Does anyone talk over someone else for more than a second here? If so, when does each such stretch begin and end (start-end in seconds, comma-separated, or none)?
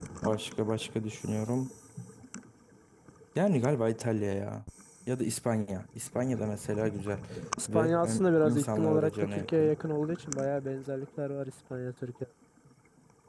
7.7-9.7